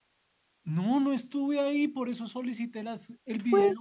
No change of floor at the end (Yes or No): No